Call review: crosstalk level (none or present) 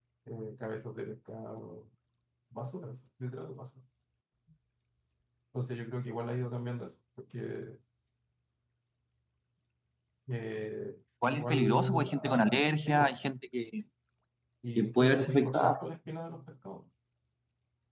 present